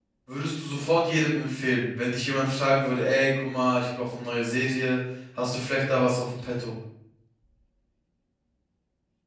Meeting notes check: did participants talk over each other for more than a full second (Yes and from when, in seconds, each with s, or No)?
No